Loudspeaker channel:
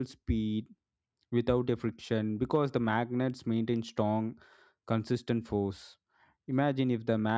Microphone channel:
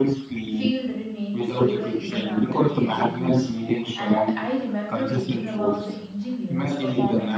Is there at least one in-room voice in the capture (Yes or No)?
Yes